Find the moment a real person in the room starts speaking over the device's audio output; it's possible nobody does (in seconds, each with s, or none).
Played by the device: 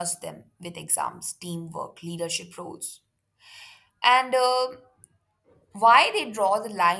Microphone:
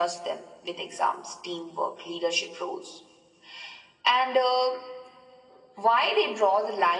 none